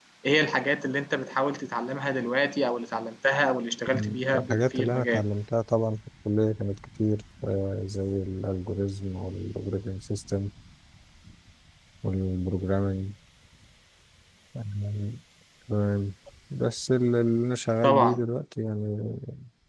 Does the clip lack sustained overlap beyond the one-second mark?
No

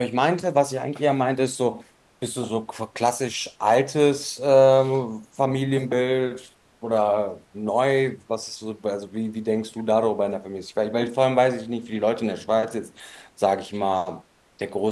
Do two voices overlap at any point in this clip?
No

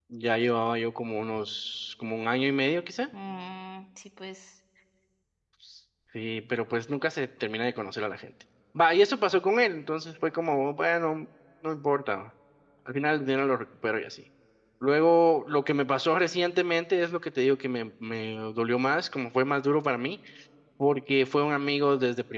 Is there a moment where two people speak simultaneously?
No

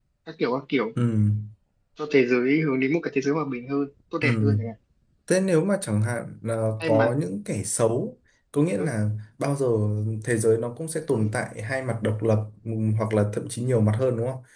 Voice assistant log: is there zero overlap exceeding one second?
Yes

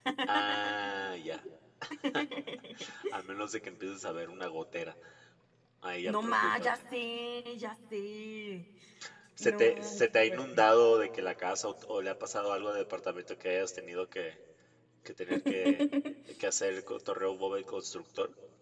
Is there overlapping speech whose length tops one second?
Yes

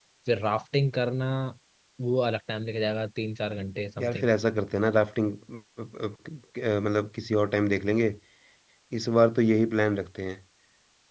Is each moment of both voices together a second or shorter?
Yes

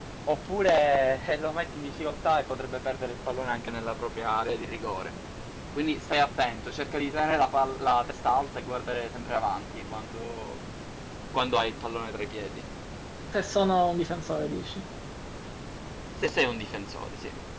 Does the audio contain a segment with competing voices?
No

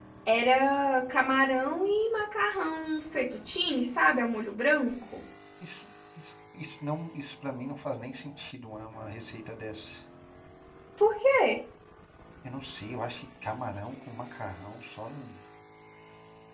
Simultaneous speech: No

